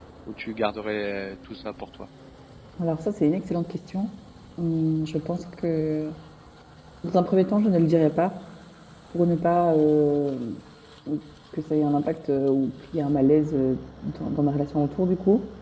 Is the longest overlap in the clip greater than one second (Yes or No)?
No